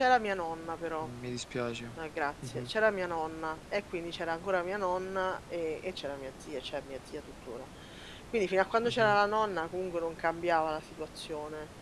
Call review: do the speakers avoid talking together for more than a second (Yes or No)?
Yes